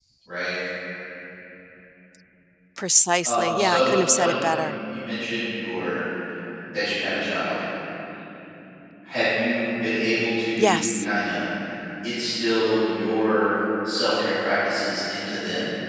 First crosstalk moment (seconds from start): 3.2 s

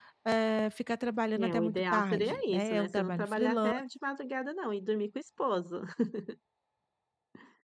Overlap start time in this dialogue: 1.4 s

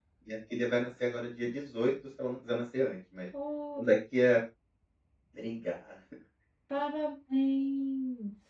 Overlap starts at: none

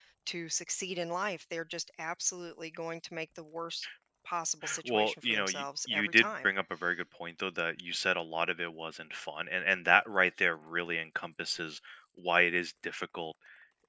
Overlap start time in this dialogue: 4.8 s

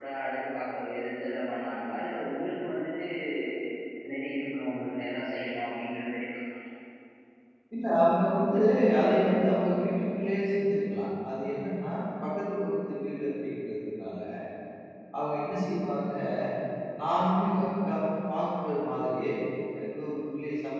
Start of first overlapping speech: none

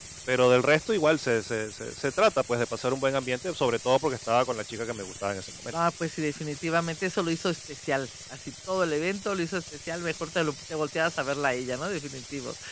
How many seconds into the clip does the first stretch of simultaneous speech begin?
none

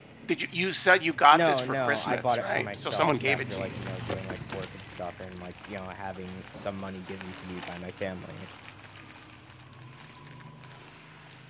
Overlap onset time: 1.3 s

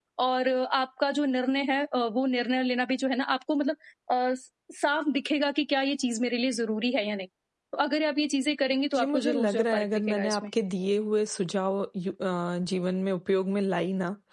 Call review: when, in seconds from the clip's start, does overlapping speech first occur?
8.9 s

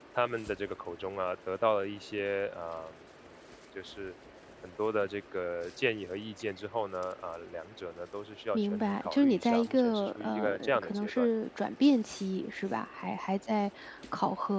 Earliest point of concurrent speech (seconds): 8.5 s

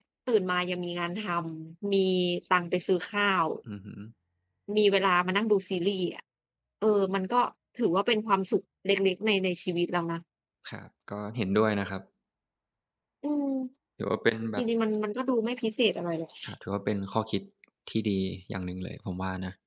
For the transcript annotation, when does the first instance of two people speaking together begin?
none

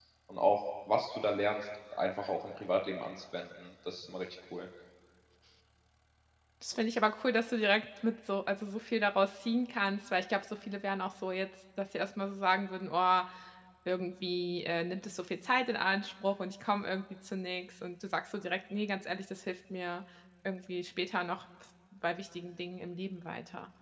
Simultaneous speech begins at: none

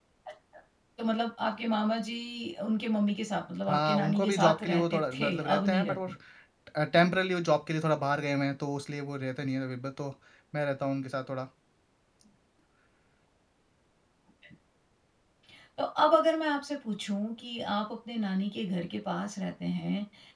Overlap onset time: 3.7 s

